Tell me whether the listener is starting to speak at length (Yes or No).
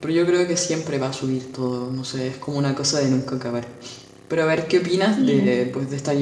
No